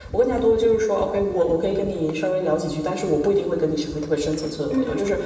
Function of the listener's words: listening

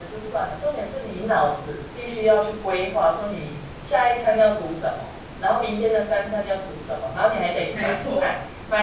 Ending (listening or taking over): listening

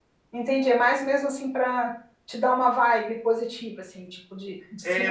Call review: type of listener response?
taking over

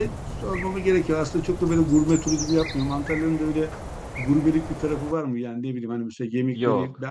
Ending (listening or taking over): listening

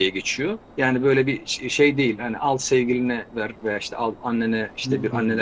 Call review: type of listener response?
listening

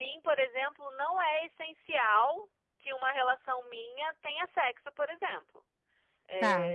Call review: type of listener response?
listening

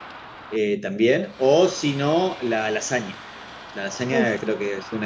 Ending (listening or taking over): listening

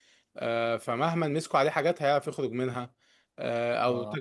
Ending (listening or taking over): listening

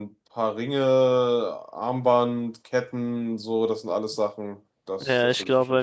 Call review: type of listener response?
taking over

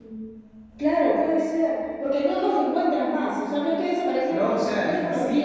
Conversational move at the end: taking over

